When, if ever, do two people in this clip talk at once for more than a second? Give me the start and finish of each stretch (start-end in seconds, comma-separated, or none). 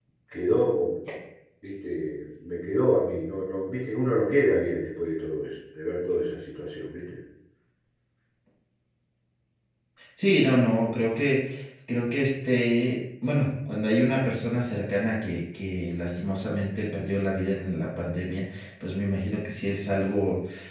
none